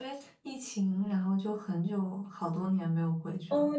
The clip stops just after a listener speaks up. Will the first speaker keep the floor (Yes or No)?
No